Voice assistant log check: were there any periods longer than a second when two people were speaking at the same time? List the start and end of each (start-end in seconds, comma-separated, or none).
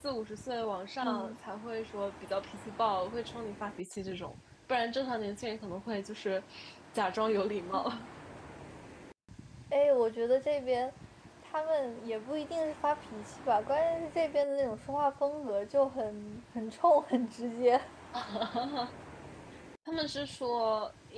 none